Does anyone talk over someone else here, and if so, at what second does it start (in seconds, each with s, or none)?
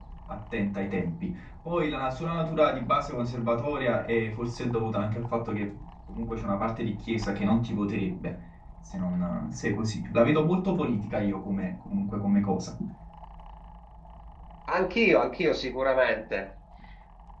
none